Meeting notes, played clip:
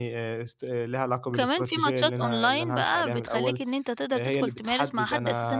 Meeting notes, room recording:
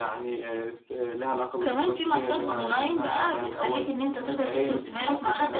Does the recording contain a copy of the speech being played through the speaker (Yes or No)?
Yes